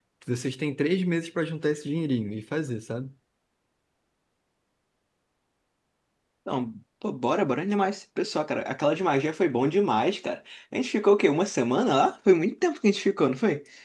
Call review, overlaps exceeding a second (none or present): none